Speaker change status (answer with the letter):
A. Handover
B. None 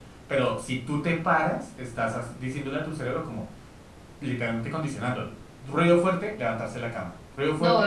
A